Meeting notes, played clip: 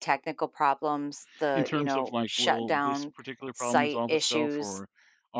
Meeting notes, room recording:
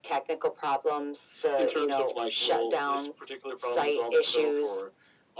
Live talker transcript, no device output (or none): none